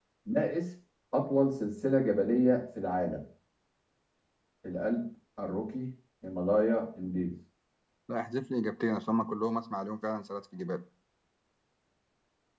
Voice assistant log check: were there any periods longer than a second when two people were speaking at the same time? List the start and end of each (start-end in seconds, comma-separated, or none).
none